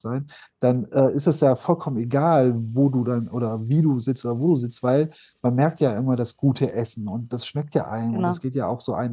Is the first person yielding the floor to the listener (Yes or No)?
No